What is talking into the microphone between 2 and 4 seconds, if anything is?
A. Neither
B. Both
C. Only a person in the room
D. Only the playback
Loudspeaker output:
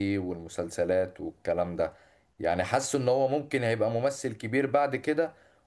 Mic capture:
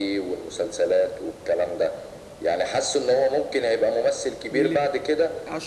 D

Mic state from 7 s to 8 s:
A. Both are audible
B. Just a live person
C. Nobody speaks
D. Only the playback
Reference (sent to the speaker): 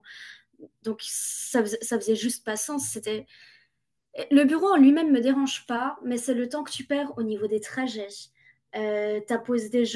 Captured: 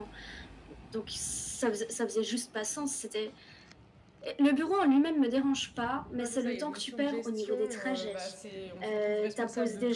A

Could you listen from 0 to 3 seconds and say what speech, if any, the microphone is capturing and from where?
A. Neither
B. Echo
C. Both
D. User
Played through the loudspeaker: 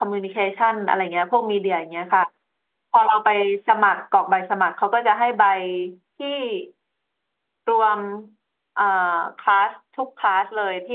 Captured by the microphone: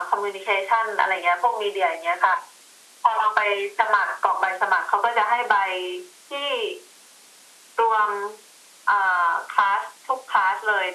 B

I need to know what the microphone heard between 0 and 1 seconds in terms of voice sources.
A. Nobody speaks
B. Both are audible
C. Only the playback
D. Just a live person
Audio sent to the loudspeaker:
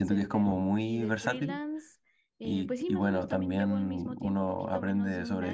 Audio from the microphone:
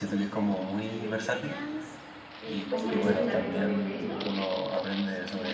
C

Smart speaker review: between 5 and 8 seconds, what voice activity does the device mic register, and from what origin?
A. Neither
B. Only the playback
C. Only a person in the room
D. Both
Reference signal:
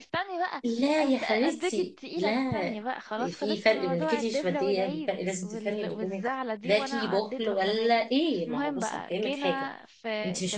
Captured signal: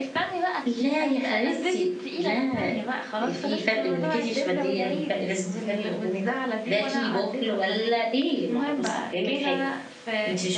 B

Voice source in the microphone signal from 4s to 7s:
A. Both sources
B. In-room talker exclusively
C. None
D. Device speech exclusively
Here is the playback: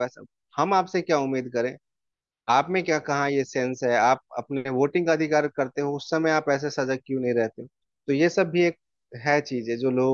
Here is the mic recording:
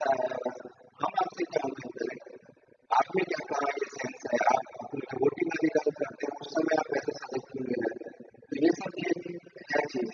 D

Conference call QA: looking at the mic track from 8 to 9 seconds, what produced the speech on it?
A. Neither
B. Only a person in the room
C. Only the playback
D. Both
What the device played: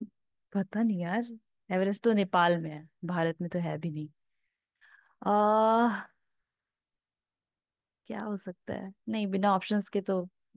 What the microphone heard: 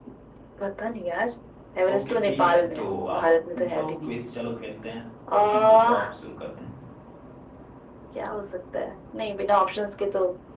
C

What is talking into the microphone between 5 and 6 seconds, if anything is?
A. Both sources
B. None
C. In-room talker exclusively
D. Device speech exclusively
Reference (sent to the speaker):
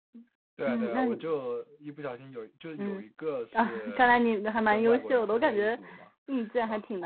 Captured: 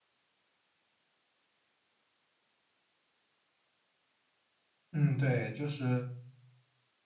C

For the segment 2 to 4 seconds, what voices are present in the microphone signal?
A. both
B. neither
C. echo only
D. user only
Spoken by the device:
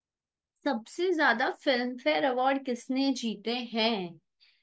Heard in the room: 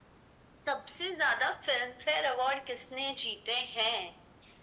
C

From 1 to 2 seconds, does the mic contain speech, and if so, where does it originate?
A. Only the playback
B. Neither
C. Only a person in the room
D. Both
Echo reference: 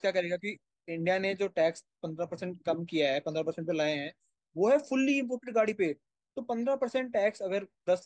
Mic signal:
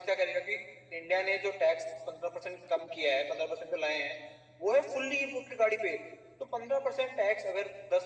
A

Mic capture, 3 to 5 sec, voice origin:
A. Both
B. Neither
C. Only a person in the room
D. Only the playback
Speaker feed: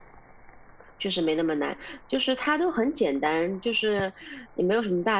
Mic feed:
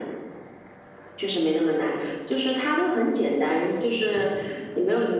D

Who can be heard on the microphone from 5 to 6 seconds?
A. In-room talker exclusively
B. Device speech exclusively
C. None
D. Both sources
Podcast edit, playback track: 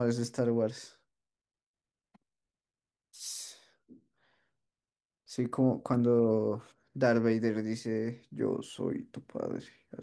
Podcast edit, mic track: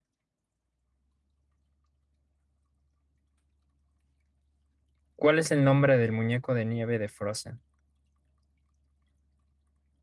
A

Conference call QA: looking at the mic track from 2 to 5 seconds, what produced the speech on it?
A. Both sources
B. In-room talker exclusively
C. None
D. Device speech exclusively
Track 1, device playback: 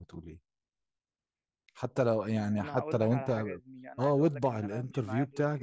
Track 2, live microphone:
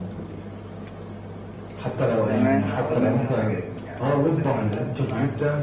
A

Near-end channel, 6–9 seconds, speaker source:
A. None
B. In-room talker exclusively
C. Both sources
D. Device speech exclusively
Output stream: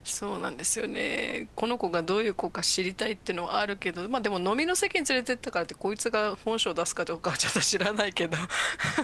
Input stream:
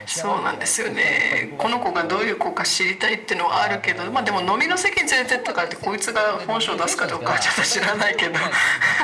C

